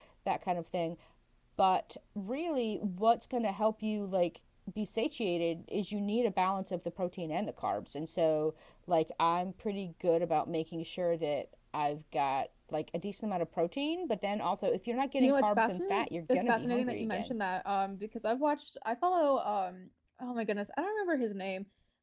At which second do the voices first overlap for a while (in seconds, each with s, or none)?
15.2 s